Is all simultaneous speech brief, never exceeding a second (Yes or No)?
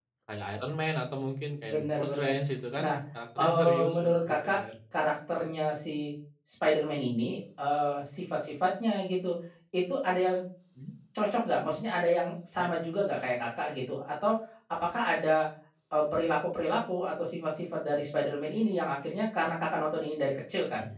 No